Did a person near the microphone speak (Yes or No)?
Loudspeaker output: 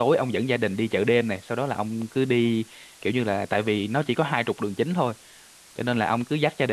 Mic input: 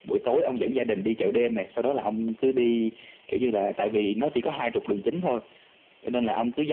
No